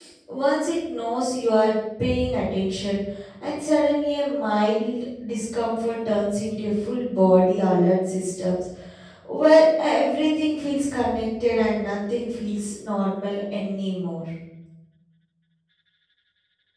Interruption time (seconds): none

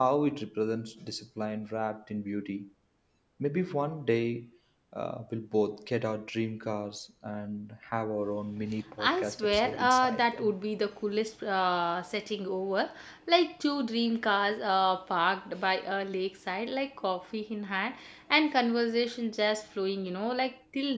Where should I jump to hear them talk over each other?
9.0 s

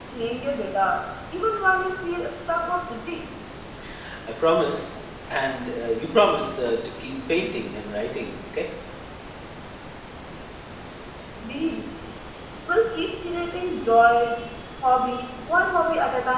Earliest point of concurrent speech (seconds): none

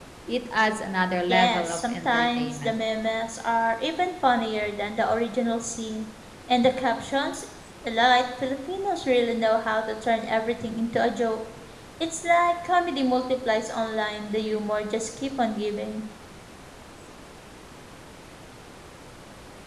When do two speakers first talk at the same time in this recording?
1.3 s

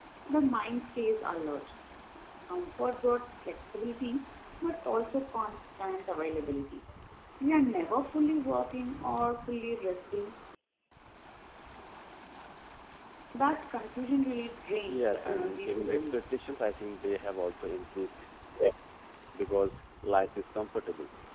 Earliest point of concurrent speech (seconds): 14.9 s

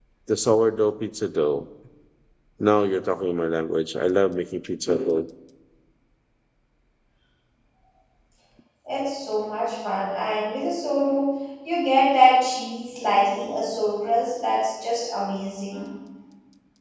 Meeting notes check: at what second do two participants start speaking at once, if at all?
none

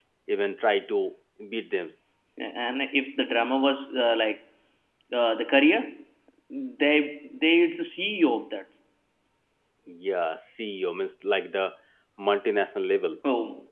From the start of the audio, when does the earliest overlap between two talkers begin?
none

